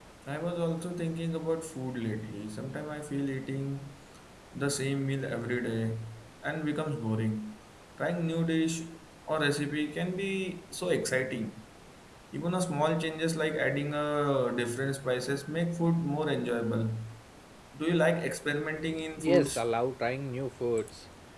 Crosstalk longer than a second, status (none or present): none